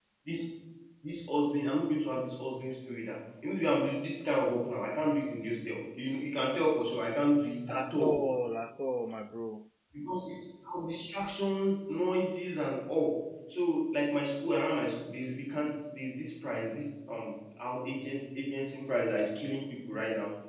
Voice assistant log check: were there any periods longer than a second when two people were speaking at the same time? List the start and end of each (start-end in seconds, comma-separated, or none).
none